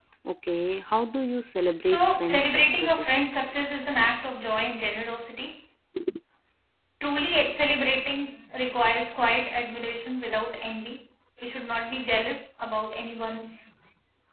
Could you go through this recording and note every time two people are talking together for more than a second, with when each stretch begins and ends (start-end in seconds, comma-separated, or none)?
1.8-3.2